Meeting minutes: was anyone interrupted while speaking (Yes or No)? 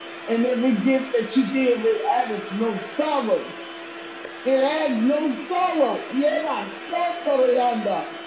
No